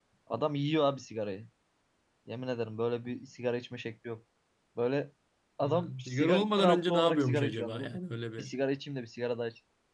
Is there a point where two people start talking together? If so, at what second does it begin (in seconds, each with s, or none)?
5.6 s